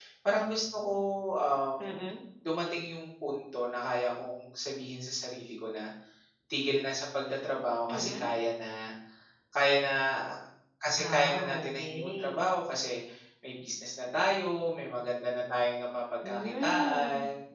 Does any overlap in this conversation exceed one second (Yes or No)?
Yes